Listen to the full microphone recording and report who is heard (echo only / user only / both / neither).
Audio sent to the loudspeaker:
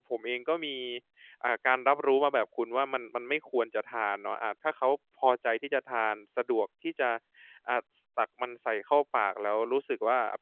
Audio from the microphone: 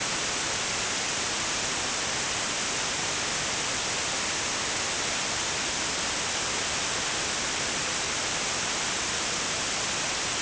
neither